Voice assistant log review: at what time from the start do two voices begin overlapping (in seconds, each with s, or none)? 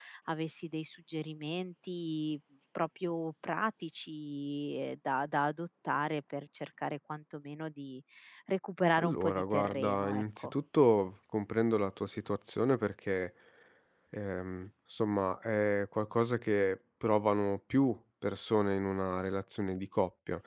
9.0 s